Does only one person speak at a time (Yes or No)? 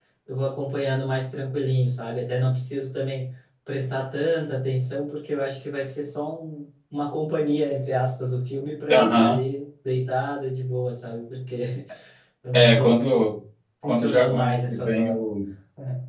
No